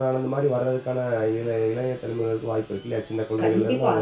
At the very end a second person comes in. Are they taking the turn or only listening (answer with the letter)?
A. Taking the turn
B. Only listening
A